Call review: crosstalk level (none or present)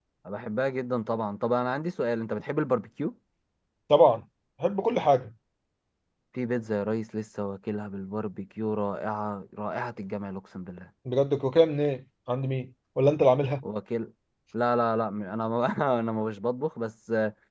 none